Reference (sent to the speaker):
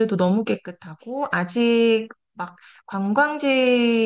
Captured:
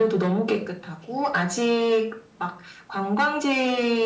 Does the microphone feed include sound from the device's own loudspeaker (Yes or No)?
Yes